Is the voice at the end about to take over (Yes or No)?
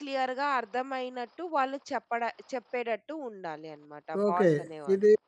Yes